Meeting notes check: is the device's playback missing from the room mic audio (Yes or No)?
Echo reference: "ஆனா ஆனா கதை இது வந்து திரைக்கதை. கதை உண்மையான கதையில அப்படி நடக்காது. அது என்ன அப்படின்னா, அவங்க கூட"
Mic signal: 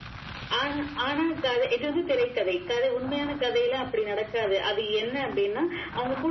No